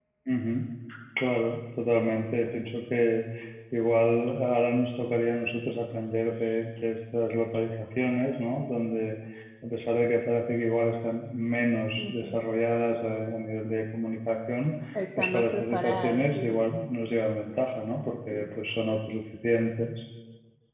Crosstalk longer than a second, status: present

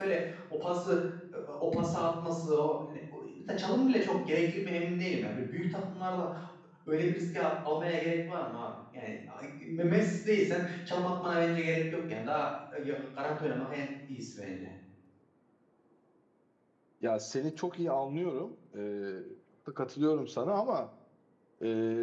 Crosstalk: none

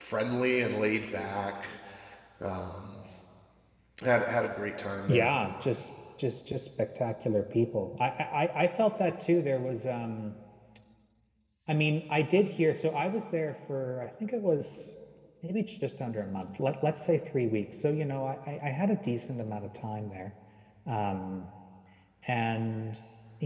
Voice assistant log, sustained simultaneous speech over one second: none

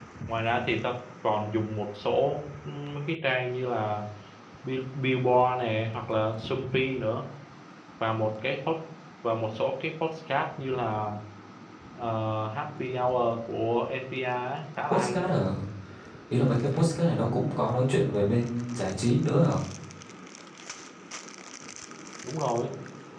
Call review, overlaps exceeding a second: none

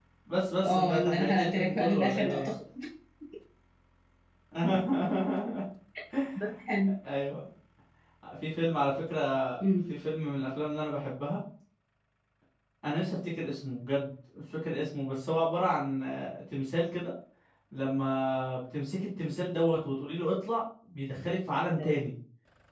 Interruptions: present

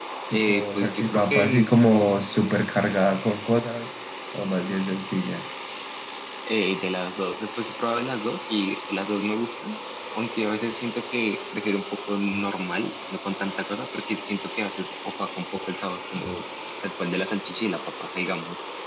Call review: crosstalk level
present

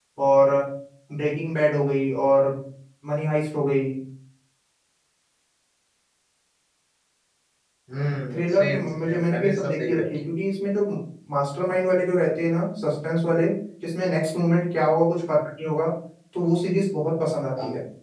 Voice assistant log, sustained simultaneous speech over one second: present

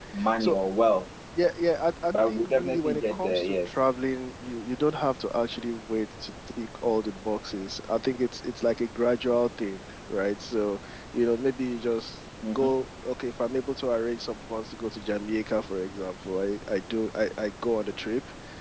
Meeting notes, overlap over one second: present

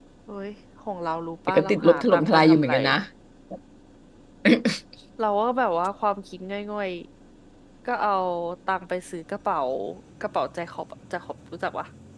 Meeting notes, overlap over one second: present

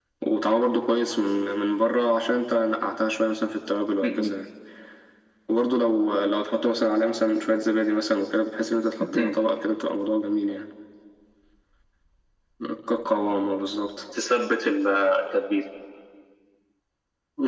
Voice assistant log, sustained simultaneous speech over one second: none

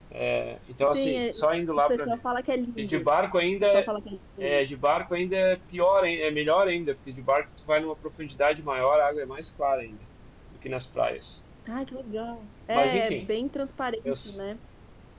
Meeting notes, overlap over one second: none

